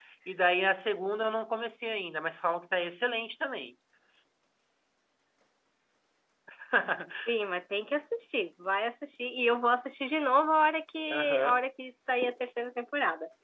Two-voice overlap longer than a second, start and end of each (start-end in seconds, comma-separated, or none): none